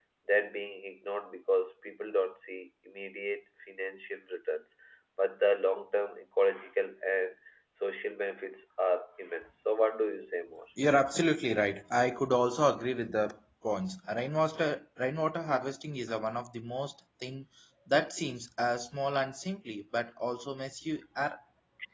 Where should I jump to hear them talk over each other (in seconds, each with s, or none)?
none